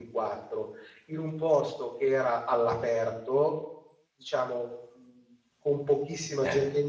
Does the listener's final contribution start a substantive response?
No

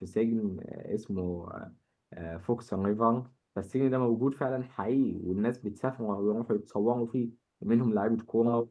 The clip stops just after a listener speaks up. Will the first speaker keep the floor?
Yes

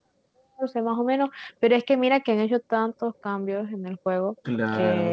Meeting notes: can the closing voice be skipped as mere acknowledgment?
Yes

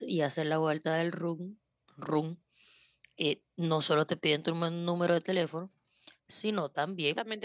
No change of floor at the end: No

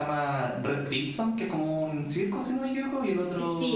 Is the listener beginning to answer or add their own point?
Yes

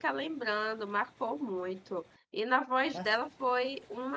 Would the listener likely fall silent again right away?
Yes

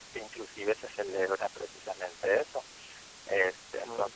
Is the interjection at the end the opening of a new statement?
No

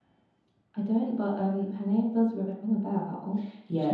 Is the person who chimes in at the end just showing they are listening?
No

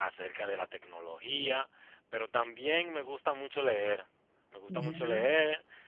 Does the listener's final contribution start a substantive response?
No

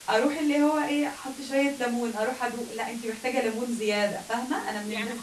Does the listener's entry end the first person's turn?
Yes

